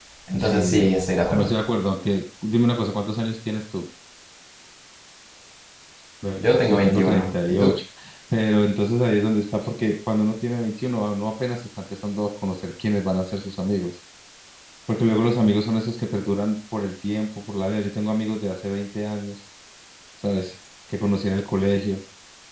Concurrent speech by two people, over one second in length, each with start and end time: 6.4-7.7

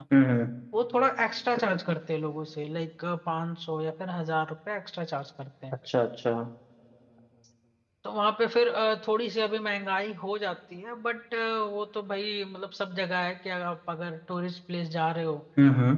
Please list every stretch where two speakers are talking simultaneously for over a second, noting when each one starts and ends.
none

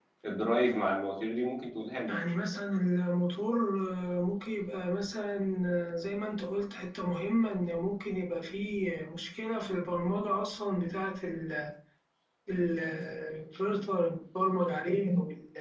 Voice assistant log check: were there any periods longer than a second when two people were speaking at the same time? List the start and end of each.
none

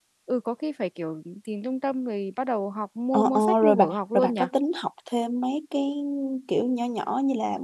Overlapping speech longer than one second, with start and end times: 3.1-4.4

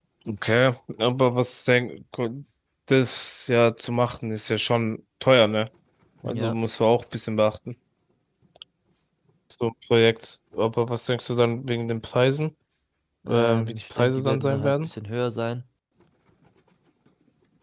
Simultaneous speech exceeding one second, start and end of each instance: 13.3-14.9

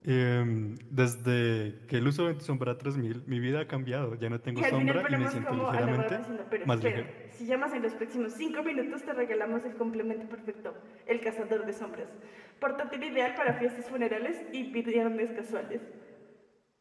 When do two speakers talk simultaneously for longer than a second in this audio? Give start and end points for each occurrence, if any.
4.5-6.2

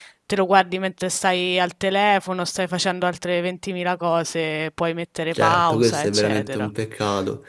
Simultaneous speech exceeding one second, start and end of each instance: 5.3-6.7

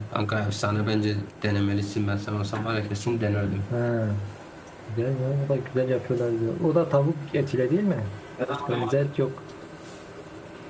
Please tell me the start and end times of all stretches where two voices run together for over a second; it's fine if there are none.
none

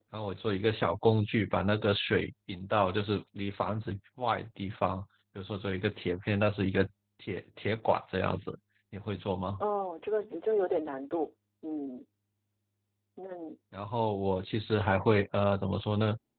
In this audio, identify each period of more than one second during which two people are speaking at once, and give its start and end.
none

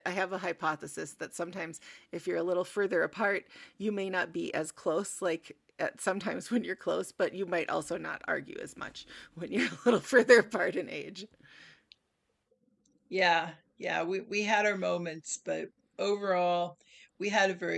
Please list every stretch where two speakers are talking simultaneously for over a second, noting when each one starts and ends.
none

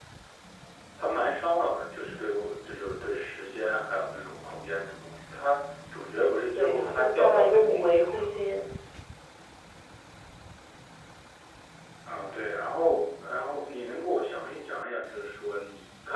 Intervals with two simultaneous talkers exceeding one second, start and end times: 6.6-8.4

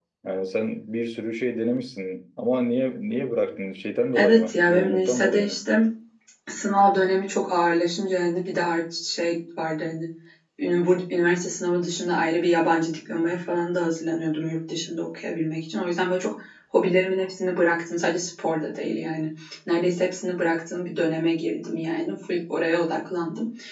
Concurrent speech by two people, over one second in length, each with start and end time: 4.2-5.6

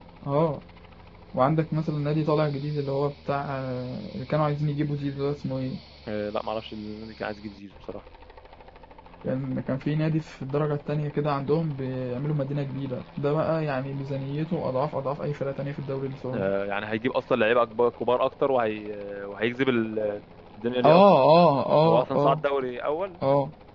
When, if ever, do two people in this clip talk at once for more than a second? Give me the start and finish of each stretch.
none

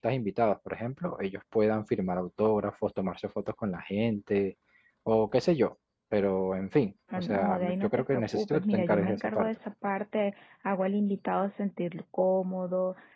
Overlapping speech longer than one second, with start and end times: 7.2-9.5

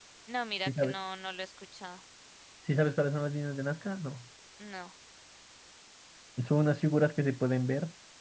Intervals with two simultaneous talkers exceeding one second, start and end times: none

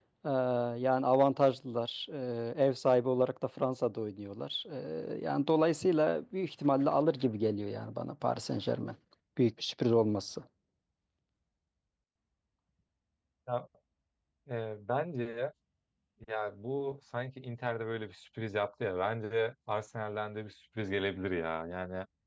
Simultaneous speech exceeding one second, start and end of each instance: none

